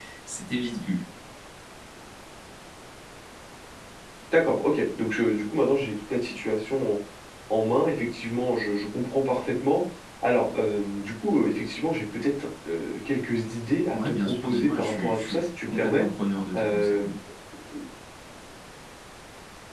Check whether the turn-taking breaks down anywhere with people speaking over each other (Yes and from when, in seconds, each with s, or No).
Yes, from 13.9 s